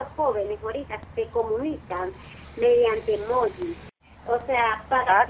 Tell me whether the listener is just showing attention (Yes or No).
No